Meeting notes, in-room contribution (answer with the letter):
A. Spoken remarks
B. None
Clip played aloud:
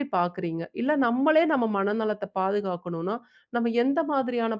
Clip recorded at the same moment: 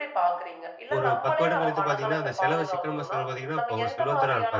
A